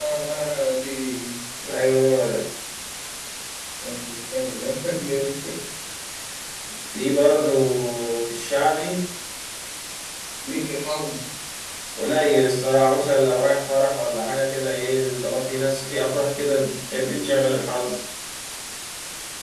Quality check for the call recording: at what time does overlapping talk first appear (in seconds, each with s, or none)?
none